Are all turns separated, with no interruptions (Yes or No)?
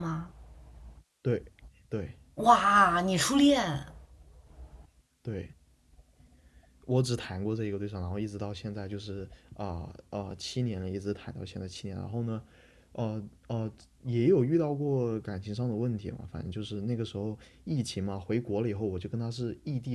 Yes